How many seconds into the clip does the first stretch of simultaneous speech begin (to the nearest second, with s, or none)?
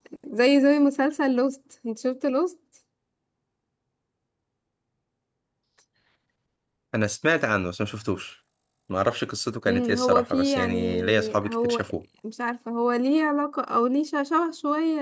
10 s